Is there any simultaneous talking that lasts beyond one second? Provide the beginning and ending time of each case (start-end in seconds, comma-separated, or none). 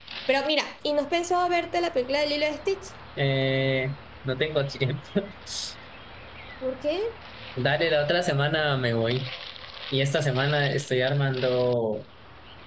none